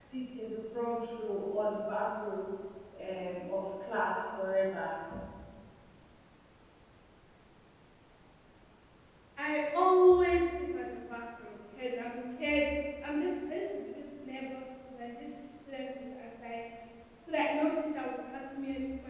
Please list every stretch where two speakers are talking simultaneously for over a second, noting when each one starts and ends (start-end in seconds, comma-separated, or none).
none